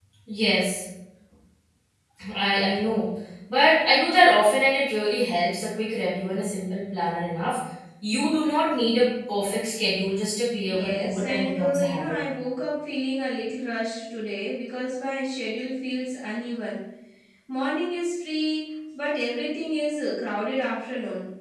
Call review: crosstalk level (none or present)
present